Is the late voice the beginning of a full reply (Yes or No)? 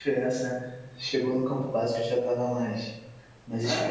Yes